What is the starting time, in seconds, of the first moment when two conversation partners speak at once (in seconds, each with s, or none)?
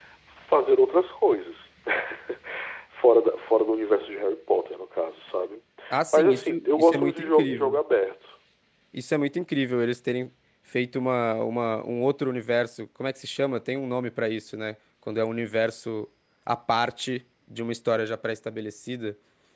6.1 s